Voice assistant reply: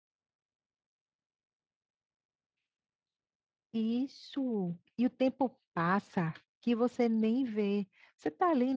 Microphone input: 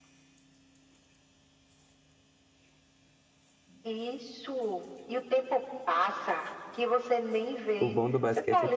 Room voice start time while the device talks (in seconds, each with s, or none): 7.8 s